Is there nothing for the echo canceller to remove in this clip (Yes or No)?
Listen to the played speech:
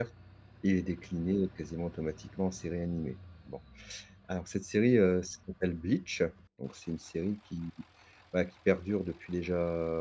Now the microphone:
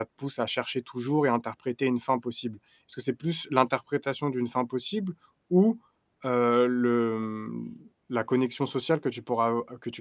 Yes